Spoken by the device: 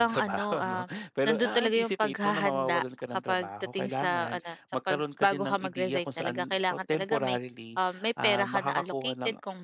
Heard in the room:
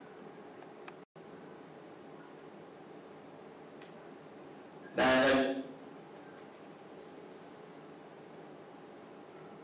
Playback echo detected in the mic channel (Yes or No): No